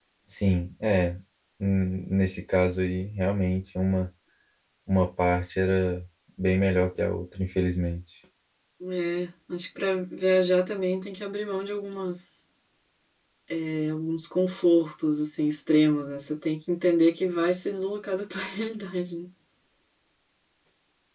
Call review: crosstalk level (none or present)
none